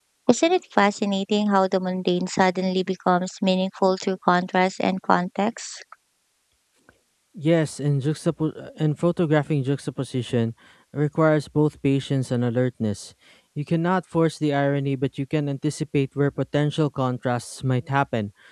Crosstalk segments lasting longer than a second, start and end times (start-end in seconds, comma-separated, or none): none